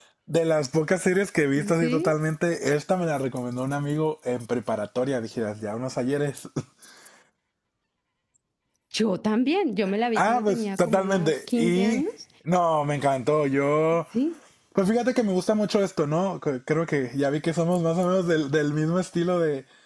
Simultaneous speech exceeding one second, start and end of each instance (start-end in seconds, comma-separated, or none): 10.2-12.0